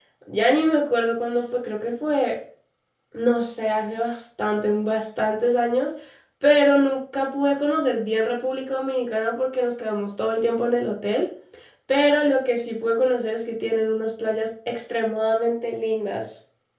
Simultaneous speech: No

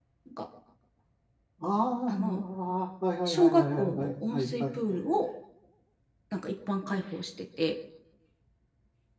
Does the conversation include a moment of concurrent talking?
Yes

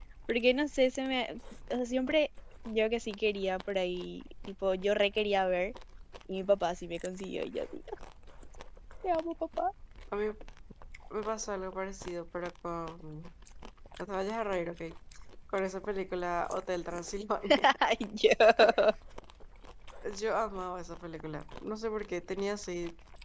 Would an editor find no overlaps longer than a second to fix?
Yes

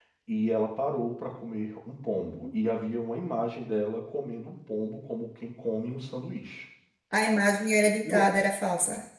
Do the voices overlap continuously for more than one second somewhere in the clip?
No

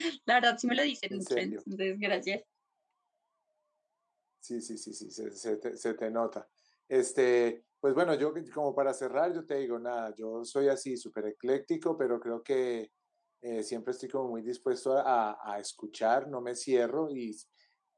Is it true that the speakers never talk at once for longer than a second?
Yes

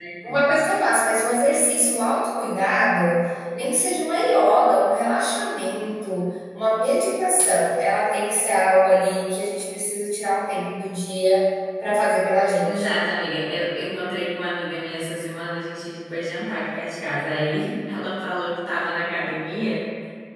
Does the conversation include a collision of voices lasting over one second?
No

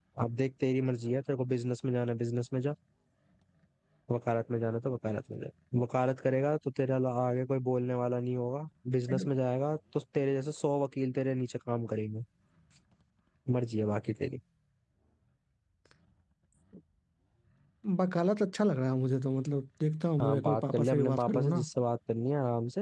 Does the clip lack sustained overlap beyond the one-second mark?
No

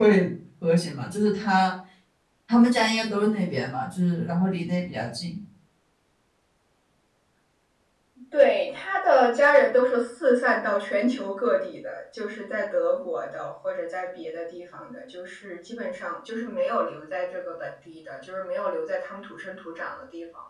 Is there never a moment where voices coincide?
Yes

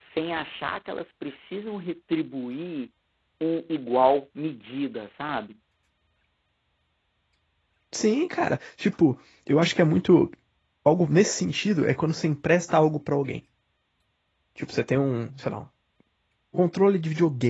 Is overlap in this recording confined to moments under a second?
Yes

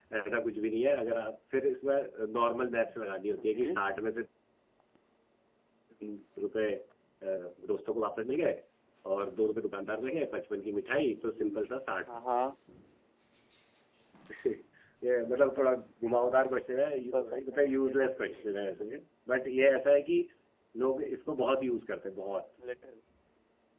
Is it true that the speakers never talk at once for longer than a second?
No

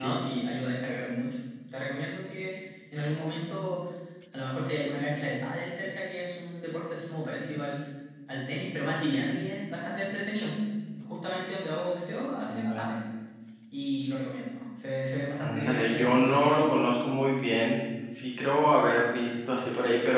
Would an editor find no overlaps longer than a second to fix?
No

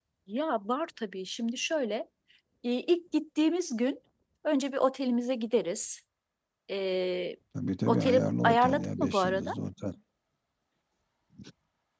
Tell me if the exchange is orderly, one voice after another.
No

